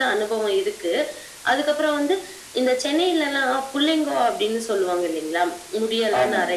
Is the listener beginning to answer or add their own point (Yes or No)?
No